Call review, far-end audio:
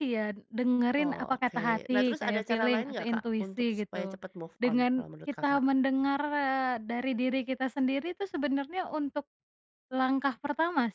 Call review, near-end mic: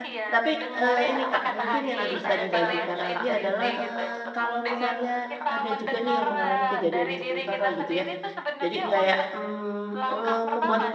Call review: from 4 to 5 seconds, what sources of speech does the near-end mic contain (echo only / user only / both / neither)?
both